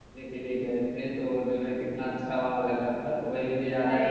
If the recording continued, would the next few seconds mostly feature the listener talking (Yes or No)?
No